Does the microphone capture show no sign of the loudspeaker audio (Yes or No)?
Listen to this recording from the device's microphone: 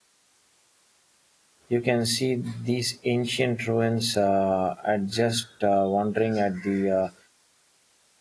Yes